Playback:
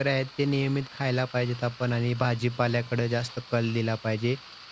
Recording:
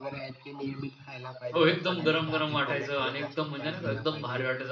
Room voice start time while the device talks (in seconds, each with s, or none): 1.6 s